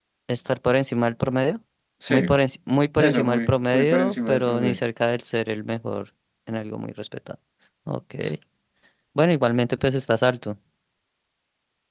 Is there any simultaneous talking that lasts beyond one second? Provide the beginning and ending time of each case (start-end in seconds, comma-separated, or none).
3.0-4.8